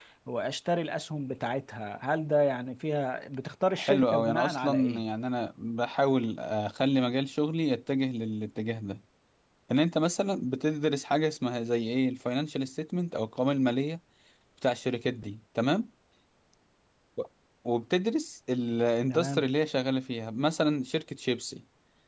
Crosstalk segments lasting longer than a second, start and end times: 3.8-5.0

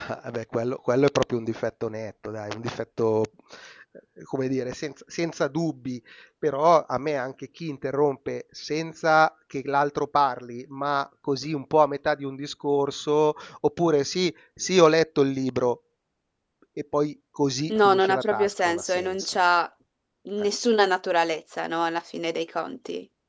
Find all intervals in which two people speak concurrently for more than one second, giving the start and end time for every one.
17.7-19.4

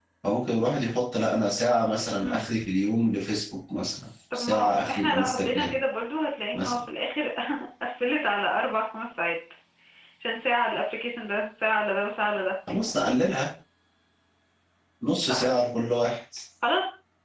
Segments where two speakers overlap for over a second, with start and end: 4.3-5.7

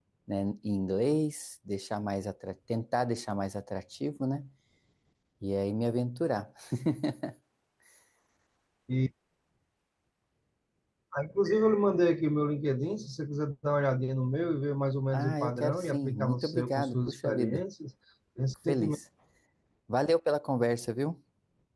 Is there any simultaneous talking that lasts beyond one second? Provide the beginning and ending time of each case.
15.1-17.6

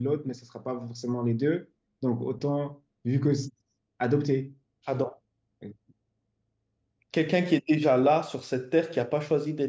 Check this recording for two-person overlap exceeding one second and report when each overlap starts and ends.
none

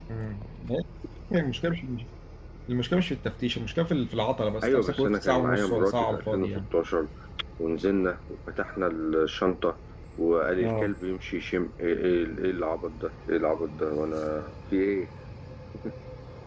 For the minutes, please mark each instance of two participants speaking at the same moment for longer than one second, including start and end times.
4.6-6.5

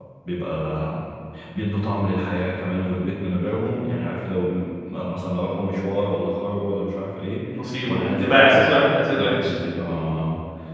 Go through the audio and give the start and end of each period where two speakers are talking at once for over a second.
7.9-9.5

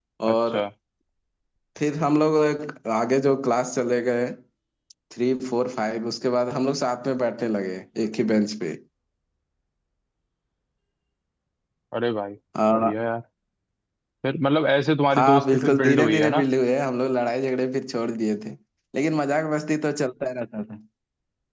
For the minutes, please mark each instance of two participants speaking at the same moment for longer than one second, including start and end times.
15.1-16.4

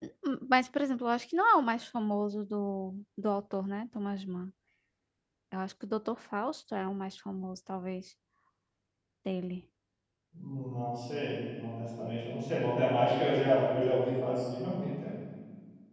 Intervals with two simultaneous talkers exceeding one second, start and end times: none

